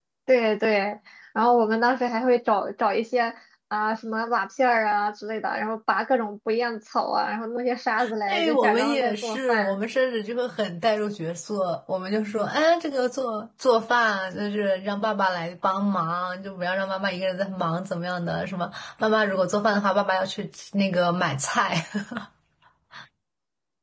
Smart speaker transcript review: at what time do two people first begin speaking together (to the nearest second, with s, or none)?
8 s